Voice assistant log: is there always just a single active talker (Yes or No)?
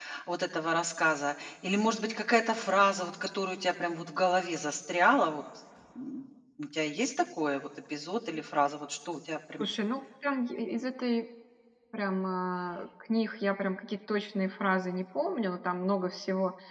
Yes